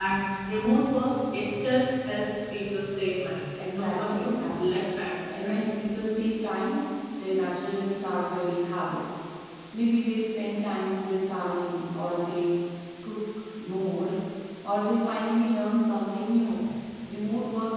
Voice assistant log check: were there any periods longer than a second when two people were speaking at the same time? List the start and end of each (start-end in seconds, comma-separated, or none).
3.7-4.9